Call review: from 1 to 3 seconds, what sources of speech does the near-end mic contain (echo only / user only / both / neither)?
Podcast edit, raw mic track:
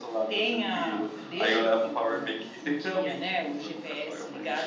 echo only